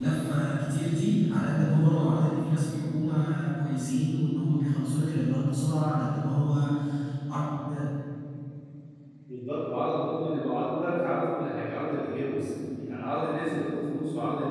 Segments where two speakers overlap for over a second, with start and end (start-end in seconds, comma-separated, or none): none